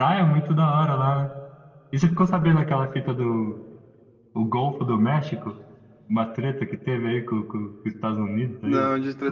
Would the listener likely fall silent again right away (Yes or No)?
No